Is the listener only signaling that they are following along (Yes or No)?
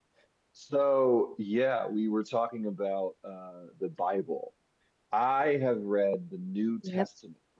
Yes